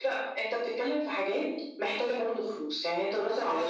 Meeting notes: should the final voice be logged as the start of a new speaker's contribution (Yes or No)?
Yes